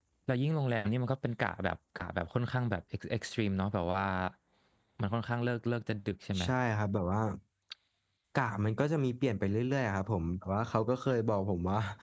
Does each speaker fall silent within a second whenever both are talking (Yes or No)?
Yes